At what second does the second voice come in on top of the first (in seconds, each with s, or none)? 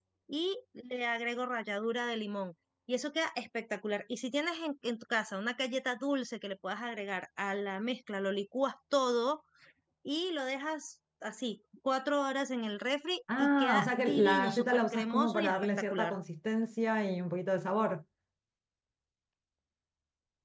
13.3 s